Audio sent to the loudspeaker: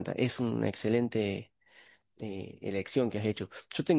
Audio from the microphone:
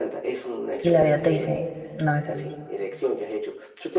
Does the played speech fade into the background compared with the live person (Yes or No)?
Yes